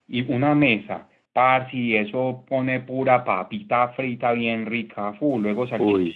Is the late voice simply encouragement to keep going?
Yes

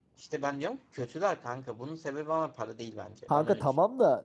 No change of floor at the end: No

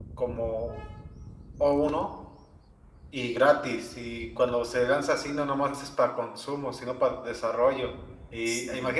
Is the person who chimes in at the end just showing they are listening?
Yes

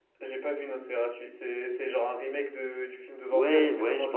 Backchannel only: No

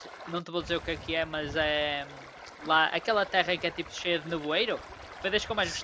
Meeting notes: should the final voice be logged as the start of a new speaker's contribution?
Yes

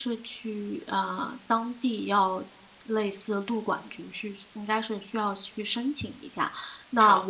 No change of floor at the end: Yes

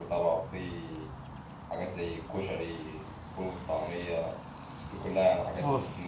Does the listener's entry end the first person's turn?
No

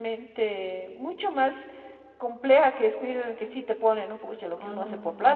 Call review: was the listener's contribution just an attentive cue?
Yes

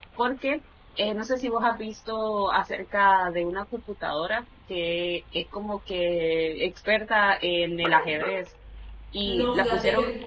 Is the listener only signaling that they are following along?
No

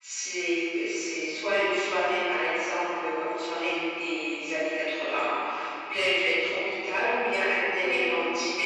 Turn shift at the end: No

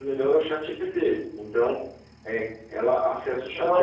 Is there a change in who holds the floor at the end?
Yes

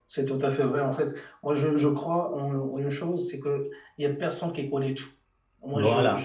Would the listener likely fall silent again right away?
Yes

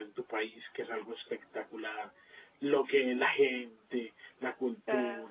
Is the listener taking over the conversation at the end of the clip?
No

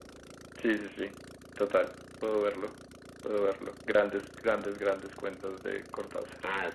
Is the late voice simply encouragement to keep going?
No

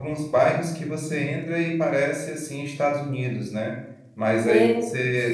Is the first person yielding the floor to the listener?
No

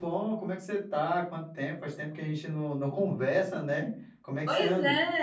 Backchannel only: No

